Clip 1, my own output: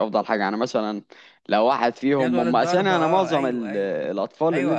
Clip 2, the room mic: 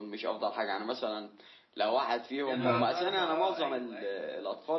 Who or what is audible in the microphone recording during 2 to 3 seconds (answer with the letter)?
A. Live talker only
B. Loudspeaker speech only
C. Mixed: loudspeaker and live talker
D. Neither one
C